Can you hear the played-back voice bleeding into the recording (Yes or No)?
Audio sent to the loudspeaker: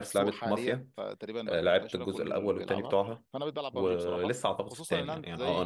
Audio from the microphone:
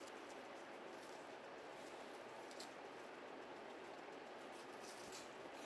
No